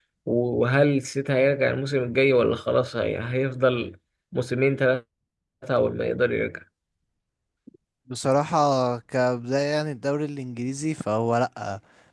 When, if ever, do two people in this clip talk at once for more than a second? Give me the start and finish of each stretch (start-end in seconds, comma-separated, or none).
none